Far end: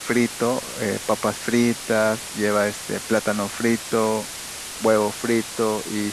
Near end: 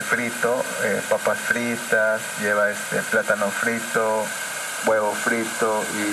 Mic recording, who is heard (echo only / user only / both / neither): echo only